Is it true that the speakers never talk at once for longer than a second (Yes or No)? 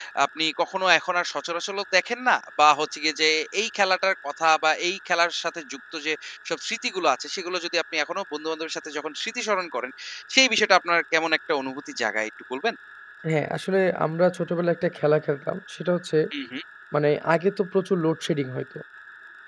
Yes